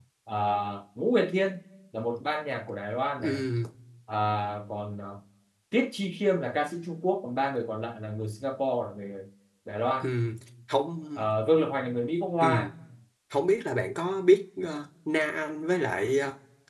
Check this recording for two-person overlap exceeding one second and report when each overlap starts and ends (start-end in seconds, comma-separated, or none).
none